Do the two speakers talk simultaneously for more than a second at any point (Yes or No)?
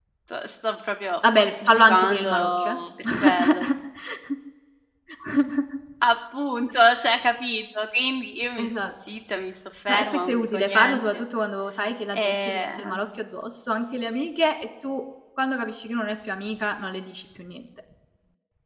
Yes